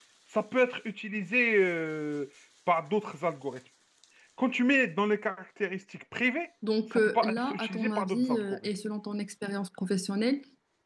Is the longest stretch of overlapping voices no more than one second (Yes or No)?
No